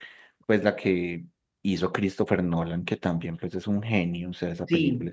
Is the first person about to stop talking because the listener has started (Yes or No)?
Yes